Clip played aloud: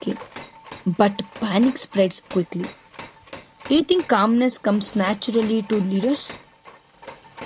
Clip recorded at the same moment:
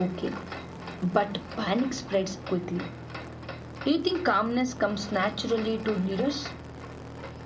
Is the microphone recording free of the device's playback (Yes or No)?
No